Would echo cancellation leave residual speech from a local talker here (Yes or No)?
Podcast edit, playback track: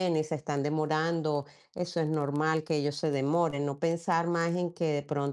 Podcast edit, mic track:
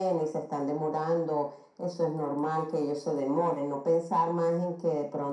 No